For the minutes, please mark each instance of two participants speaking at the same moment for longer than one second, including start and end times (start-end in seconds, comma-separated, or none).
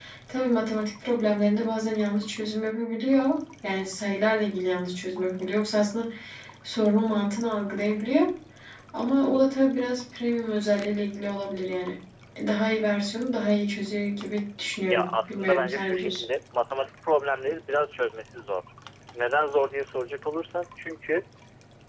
14.9-16.2